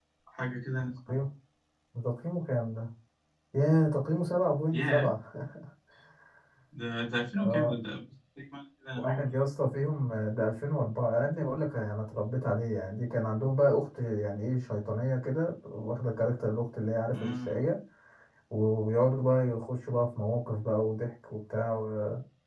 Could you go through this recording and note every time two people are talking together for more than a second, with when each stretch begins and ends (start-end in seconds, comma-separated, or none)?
none